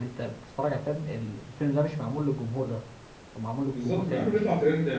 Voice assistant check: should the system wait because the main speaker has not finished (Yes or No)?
No